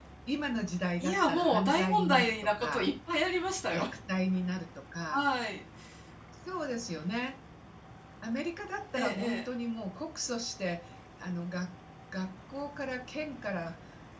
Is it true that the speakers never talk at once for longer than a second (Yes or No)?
No